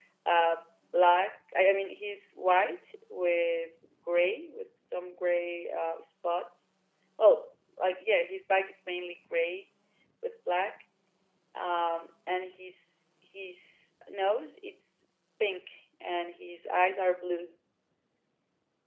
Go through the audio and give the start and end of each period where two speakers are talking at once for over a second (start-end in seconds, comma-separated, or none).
none